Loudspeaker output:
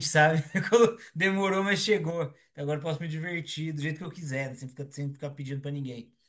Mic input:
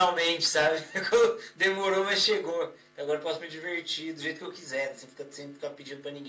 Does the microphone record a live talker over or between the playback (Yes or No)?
No